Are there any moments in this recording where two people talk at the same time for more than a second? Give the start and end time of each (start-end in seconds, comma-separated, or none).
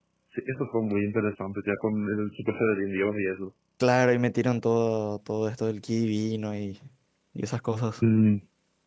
none